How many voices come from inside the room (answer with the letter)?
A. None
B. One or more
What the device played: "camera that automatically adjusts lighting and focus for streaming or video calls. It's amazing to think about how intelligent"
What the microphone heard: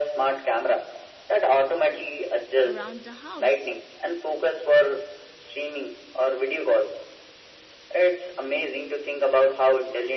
B